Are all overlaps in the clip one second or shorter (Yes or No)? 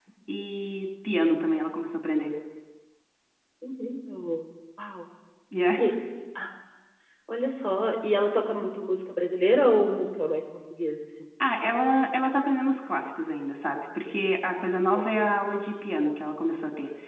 Yes